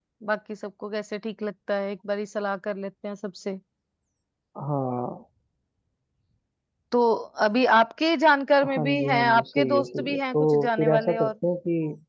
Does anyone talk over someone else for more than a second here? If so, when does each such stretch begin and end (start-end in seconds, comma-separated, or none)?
8.7-11.3